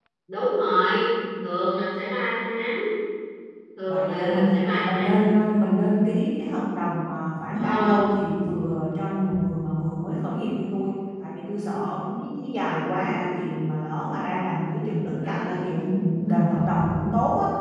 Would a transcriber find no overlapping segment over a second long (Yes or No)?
No